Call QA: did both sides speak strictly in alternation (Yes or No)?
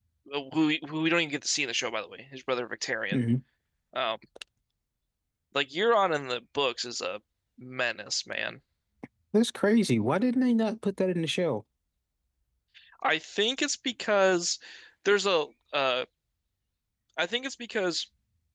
Yes